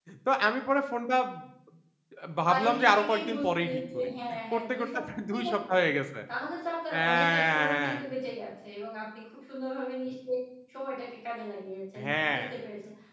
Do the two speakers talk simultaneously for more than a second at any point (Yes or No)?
Yes